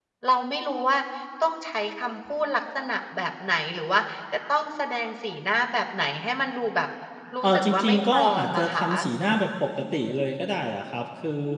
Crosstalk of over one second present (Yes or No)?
Yes